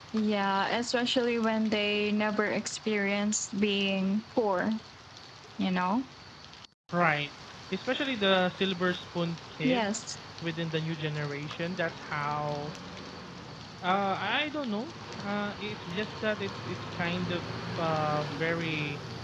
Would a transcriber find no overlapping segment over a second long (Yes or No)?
Yes